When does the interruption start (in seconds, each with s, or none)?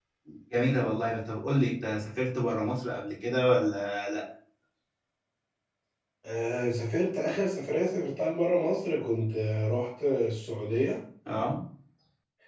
none